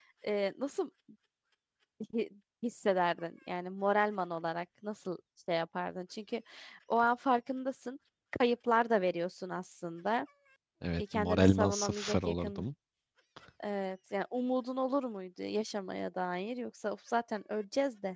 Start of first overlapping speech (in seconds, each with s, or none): 11.0 s